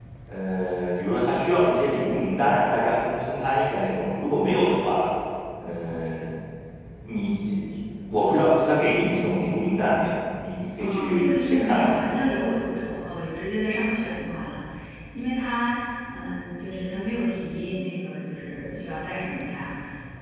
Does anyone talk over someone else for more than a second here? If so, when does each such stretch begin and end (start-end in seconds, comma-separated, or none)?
10.8-12.0